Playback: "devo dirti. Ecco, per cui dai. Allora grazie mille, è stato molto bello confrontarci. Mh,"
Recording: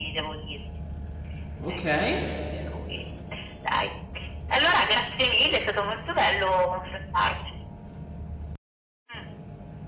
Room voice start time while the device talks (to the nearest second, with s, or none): 2 s